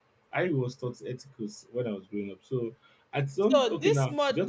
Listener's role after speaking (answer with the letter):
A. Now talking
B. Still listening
A